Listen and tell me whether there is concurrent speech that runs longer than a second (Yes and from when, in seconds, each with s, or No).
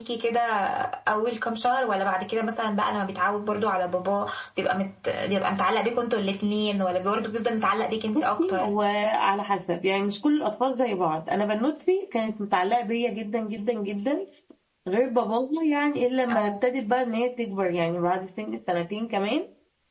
No